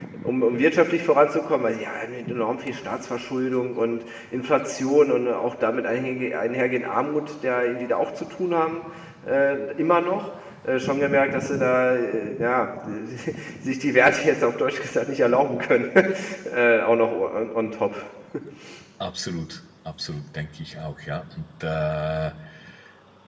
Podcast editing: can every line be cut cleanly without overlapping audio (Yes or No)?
Yes